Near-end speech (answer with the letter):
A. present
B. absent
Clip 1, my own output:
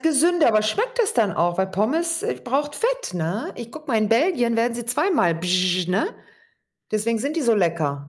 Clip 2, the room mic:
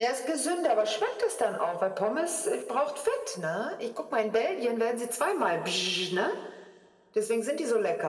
B